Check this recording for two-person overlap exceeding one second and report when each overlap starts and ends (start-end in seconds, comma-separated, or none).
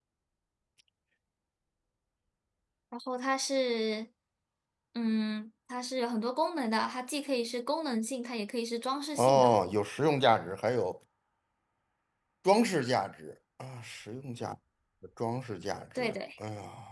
none